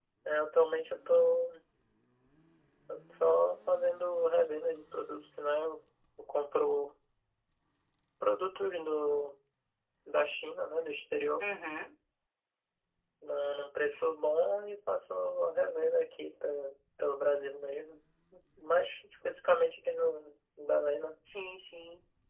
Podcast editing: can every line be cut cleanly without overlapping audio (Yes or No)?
Yes